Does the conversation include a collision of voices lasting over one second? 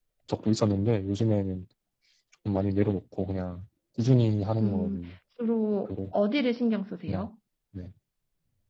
No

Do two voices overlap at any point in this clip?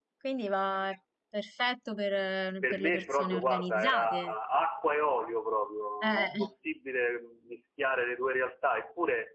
Yes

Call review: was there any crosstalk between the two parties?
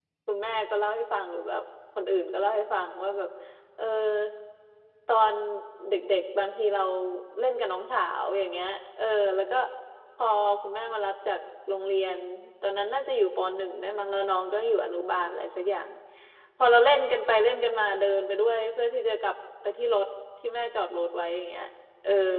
No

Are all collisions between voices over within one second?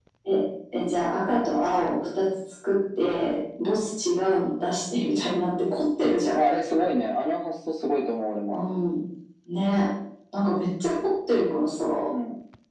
Yes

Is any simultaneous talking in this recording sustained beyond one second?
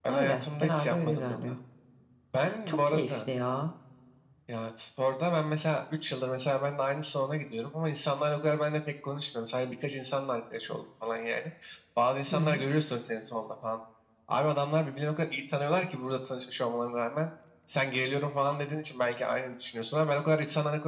Yes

